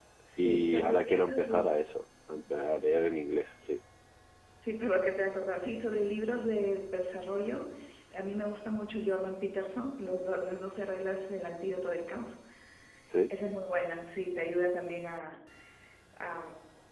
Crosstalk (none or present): present